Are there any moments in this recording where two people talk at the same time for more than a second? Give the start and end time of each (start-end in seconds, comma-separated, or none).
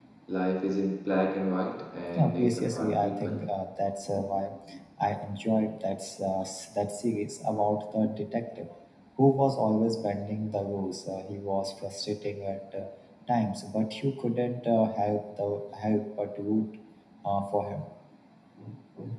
2.2-3.4